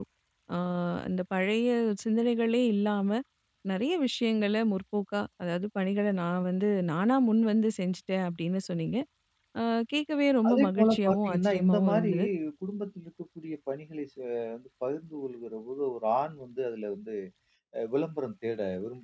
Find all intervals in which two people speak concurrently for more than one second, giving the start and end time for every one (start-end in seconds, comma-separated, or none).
10.5-12.1